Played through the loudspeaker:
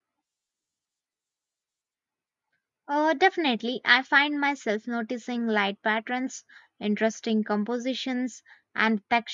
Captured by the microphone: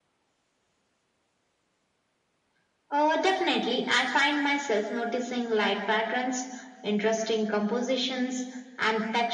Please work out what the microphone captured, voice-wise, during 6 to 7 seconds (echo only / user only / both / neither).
echo only